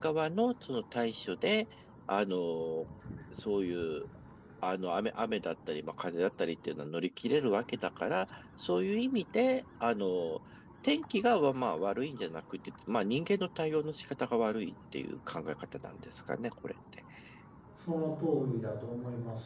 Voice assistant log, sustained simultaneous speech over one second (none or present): none